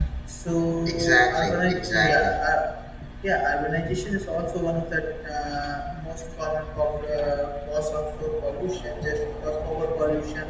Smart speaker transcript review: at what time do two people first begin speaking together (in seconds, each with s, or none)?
0.9 s